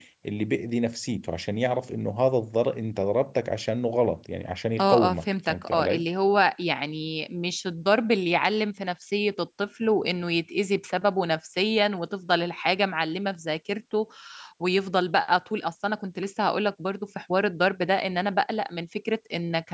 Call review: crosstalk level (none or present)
present